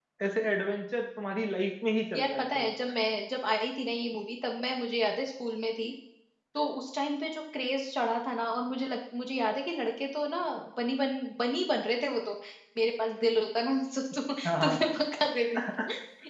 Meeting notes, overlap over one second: none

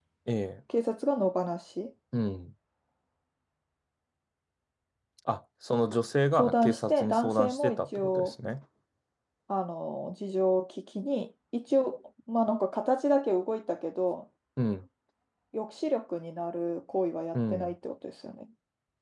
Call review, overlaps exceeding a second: present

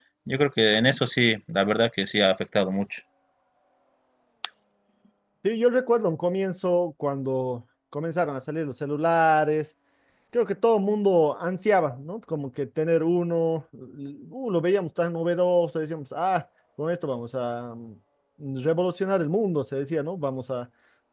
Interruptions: none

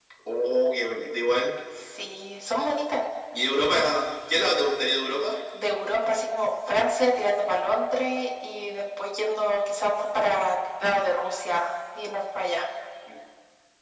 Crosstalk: none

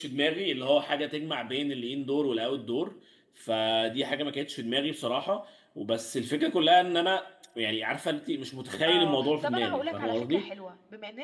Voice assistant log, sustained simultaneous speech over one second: present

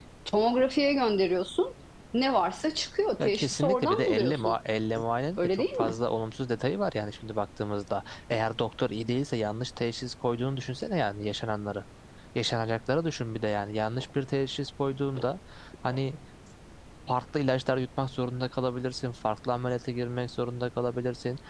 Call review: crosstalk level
present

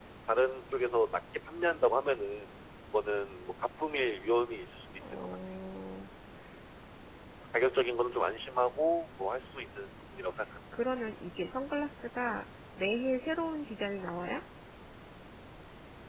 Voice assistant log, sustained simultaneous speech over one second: none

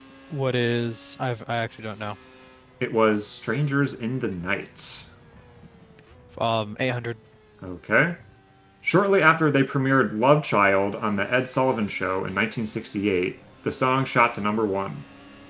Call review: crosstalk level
none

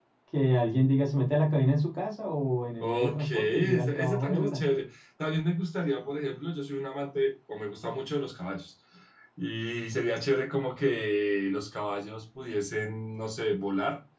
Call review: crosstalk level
present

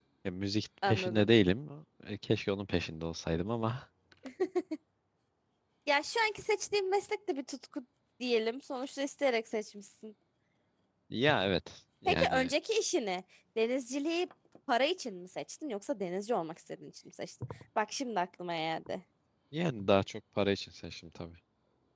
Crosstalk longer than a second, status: none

